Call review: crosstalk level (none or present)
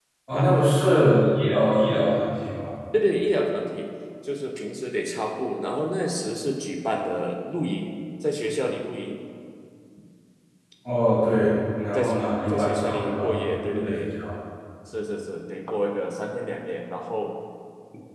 present